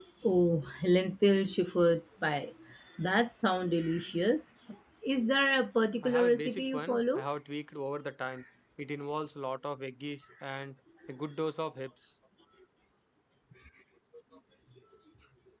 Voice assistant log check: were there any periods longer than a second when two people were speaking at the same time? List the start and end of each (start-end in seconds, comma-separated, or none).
6.0-7.3